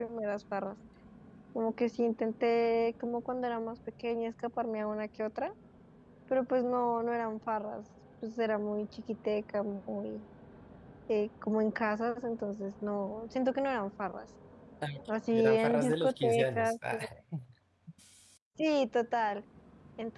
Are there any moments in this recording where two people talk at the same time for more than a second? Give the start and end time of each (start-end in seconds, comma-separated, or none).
15.1-17.0